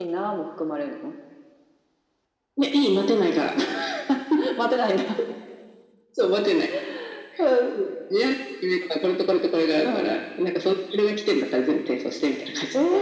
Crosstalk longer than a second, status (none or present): none